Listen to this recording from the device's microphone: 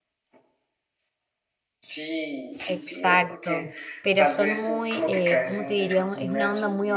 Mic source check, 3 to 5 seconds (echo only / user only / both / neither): both